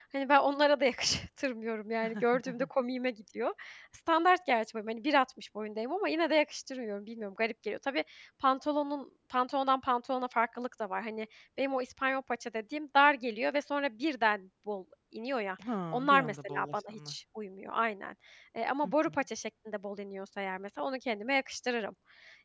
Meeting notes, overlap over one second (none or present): present